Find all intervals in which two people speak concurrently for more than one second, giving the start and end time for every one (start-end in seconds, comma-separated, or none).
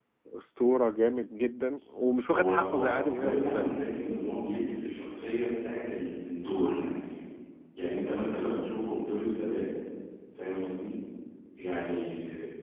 2.3-3.7